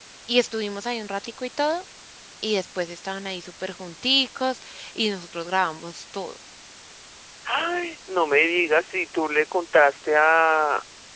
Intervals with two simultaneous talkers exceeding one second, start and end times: none

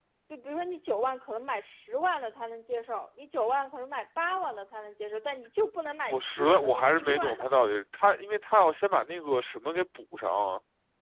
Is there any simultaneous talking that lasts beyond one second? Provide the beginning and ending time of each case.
6.1-7.5

